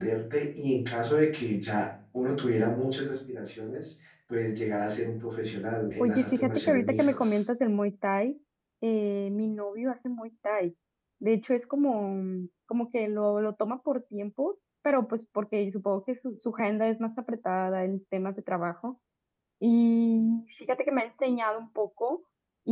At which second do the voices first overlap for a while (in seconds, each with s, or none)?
6.0 s